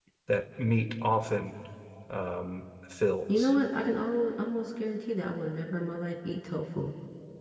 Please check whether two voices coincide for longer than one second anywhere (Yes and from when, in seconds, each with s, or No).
No